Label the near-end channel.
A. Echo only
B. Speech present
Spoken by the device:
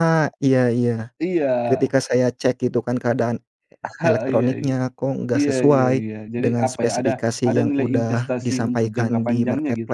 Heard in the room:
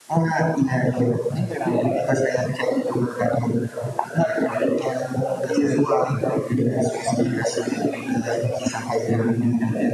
A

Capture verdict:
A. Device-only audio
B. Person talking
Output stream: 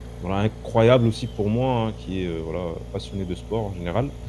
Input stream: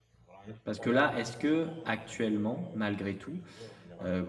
B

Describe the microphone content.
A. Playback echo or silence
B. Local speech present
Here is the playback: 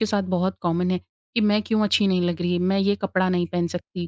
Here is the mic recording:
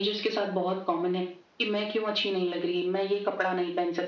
A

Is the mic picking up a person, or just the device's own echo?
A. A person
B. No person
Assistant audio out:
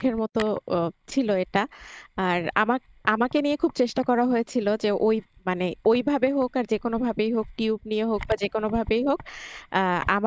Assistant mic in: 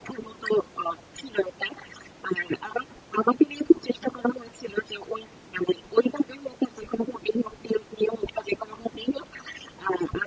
B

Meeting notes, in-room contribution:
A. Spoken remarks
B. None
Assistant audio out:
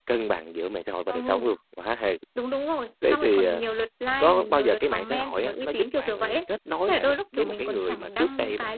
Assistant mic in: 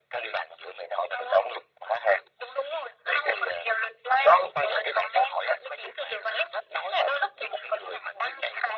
B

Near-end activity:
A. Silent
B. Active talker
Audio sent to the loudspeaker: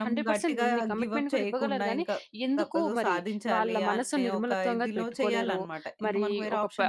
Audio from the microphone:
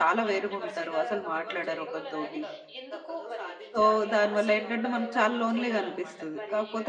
B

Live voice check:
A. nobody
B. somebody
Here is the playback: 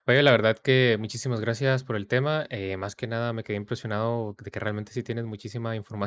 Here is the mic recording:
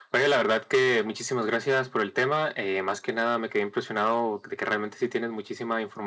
A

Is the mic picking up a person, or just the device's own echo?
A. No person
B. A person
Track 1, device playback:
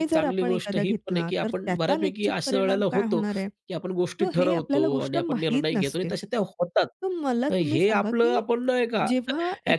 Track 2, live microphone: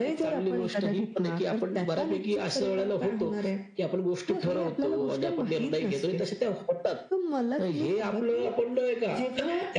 A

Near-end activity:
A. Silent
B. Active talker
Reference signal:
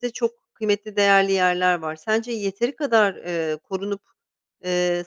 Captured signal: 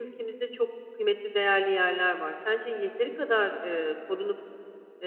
A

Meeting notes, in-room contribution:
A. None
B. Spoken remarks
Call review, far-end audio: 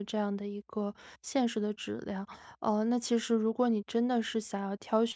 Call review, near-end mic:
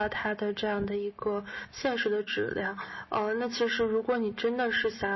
A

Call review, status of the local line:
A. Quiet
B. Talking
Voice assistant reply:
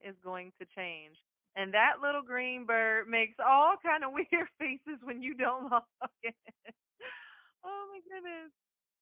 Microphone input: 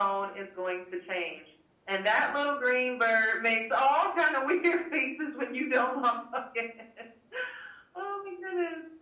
A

